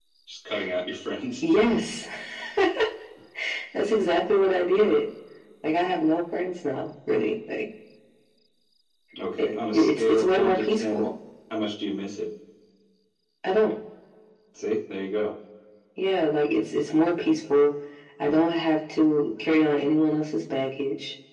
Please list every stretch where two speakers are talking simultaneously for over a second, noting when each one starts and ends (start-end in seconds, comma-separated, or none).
9.4-11.0